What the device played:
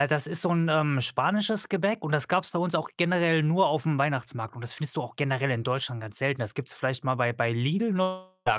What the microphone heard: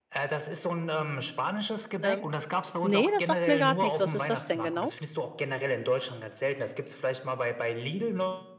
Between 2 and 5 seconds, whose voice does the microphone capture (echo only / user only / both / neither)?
both